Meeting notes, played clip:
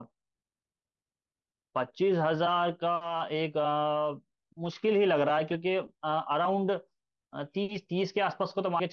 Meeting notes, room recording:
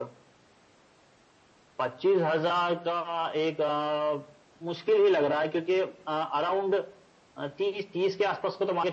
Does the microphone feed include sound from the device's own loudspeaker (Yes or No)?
Yes